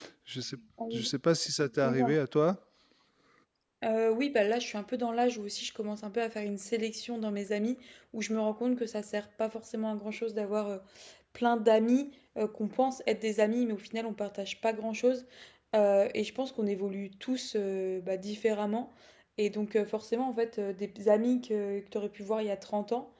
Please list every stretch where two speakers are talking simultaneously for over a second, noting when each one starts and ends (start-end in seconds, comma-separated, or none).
none